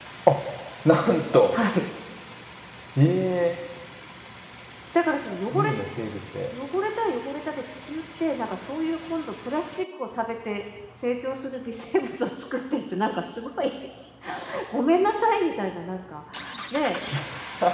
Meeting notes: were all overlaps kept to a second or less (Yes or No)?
Yes